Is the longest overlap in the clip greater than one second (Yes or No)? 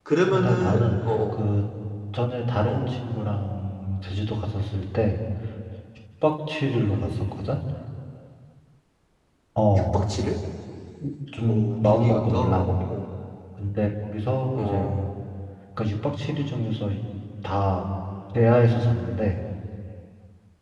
Yes